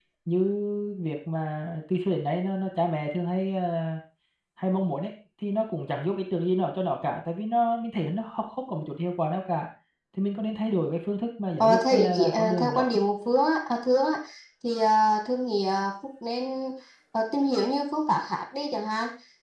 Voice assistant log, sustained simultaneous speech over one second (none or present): present